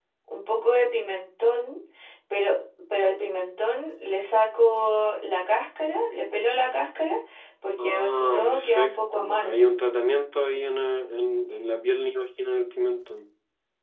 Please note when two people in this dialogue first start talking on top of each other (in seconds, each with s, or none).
7.8 s